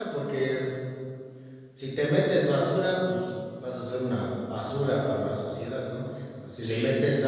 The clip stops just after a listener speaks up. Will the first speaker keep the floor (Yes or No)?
Yes